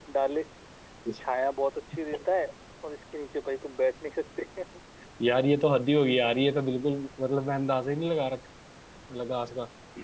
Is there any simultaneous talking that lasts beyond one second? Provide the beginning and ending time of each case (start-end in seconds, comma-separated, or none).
none